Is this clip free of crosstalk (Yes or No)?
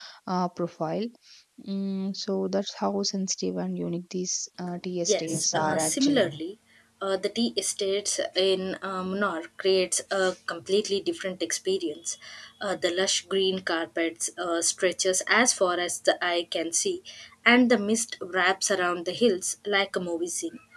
No